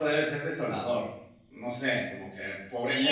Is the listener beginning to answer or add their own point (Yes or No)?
Yes